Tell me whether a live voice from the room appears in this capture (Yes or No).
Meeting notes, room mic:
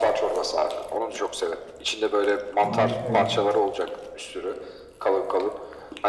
Yes